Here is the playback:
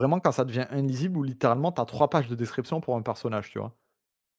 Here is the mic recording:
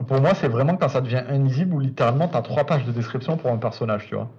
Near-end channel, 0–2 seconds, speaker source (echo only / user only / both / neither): echo only